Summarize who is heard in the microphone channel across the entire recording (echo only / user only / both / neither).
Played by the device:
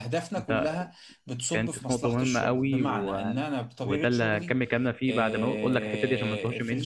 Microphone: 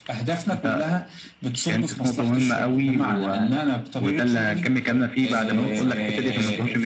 both